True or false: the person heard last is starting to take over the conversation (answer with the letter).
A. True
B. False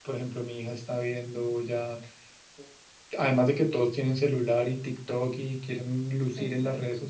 B